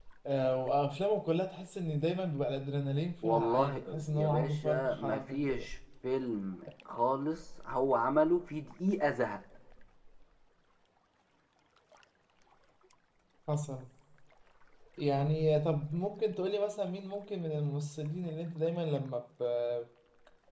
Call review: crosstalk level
present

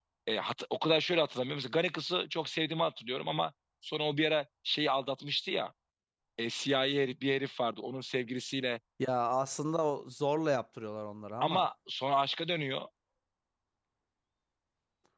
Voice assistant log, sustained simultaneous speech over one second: none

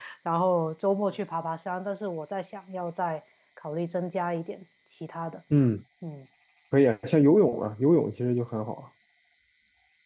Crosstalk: none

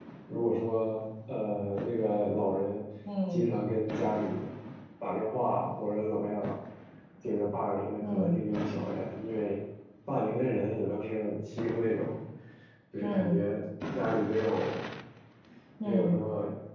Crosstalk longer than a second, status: none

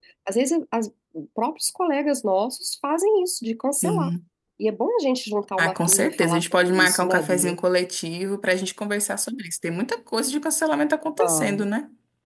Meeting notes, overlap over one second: present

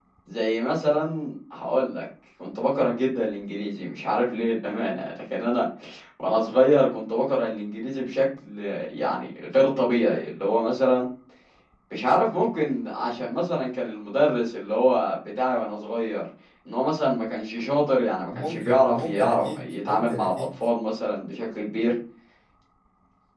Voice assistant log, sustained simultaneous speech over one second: present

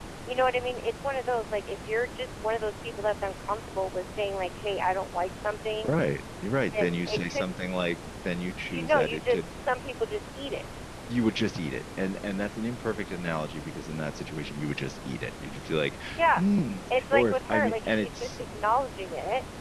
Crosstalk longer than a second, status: present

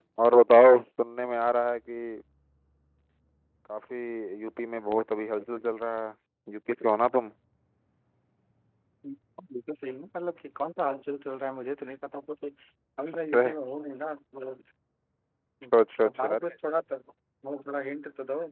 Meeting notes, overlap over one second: none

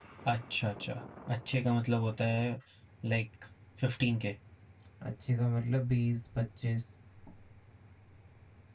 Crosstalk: none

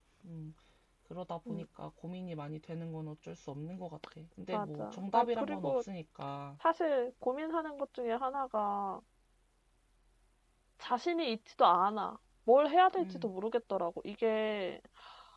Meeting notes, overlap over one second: present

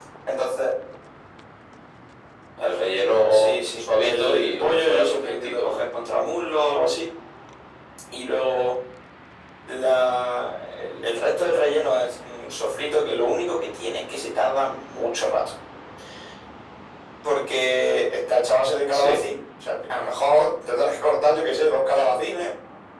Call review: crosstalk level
present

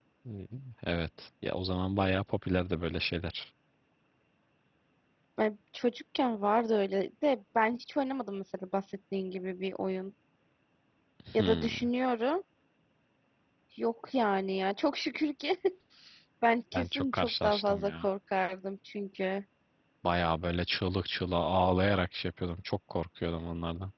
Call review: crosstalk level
present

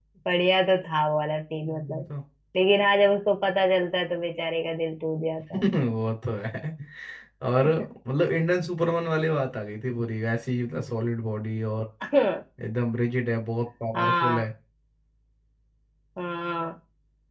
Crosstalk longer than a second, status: none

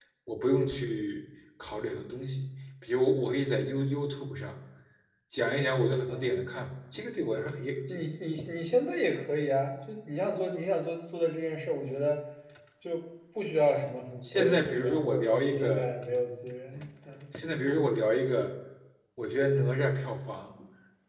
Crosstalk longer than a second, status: present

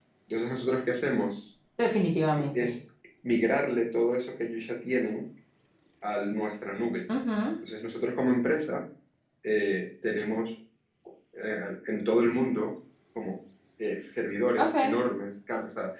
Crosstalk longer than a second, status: none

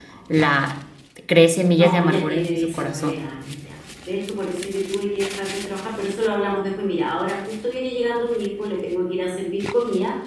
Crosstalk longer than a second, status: present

